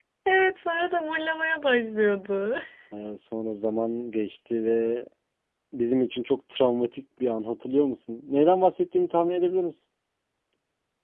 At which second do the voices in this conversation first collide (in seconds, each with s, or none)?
none